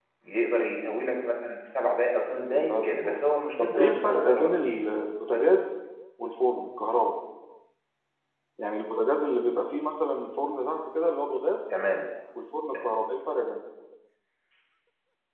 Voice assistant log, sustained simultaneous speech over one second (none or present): present